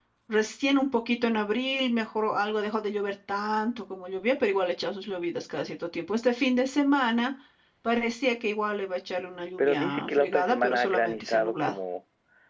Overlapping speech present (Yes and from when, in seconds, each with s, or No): Yes, from 9.6 s